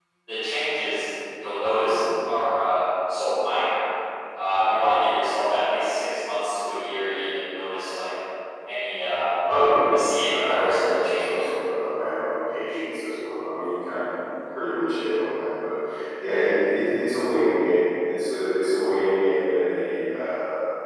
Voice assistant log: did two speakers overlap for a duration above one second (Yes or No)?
Yes